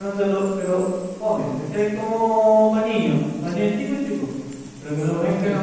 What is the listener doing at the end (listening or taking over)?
listening